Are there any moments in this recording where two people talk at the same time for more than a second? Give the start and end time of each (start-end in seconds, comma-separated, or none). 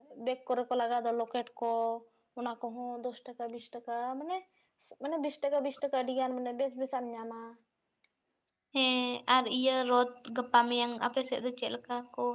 none